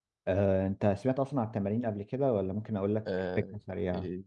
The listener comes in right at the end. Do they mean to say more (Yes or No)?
Yes